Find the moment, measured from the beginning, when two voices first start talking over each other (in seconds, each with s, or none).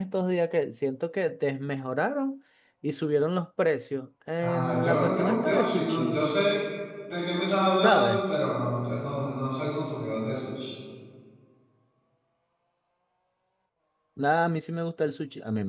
4.4 s